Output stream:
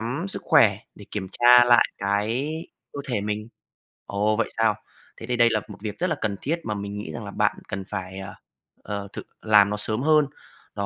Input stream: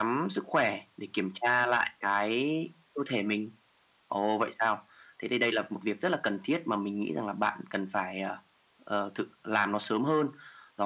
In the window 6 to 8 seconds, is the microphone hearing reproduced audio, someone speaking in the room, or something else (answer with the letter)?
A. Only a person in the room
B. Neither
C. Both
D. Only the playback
D